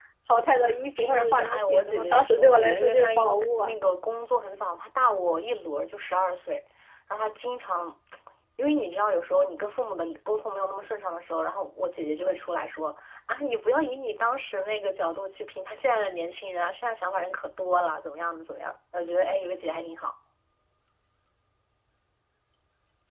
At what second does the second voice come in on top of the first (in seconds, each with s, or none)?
1.0 s